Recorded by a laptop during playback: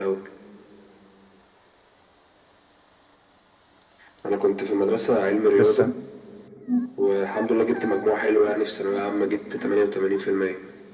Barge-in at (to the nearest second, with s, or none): 6 s